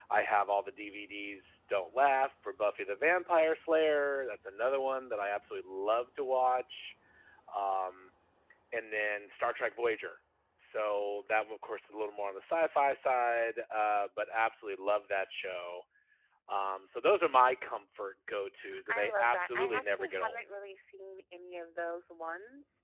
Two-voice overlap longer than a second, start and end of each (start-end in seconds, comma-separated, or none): 18.9-20.4